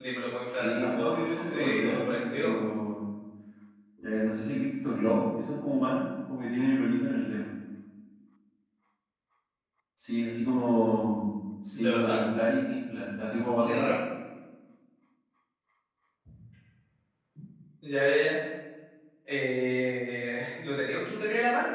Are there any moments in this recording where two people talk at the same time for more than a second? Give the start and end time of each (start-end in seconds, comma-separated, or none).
0.6-2.6